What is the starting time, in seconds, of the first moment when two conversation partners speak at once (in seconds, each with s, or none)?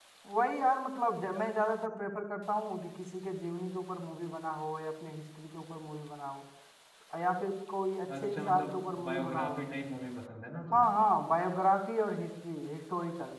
8.1 s